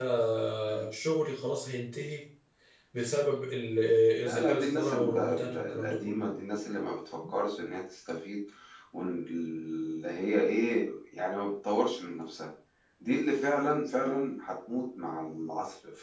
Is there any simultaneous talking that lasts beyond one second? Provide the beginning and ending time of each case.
4.2-6.2

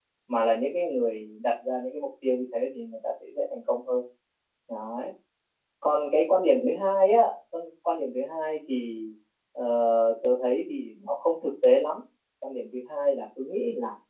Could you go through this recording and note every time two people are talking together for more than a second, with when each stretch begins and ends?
none

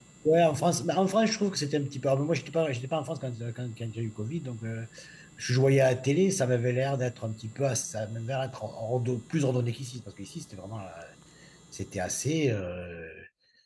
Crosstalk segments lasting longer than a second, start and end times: none

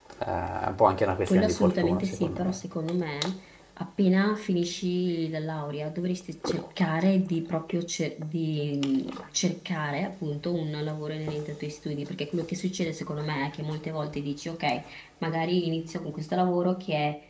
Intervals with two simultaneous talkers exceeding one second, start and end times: 1.3-2.6

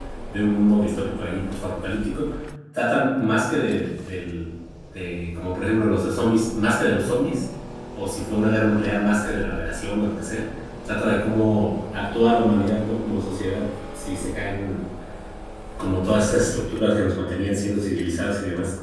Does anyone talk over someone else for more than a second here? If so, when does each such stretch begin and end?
none

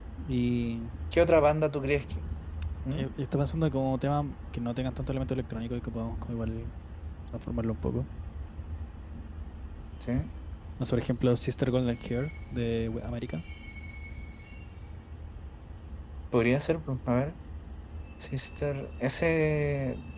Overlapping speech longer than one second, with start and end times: none

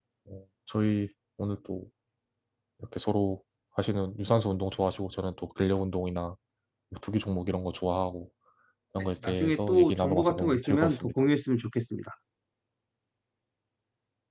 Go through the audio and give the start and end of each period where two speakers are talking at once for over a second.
9.0-11.1

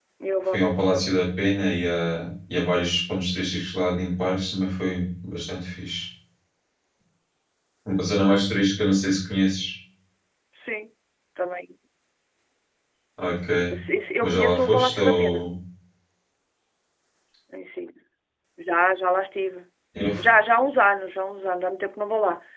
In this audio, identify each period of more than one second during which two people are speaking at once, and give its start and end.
14.2-15.4

